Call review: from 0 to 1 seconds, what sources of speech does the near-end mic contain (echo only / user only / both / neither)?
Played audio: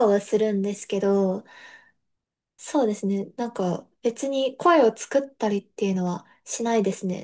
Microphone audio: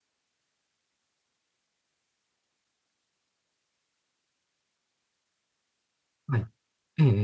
neither